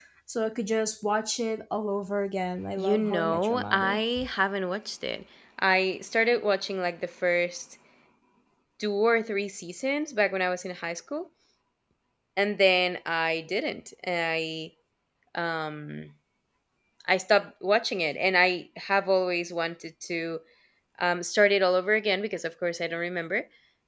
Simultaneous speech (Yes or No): Yes